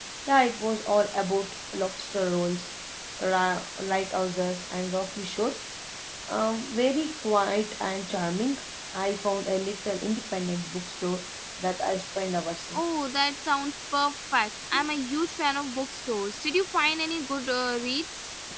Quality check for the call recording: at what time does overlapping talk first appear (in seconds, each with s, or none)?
none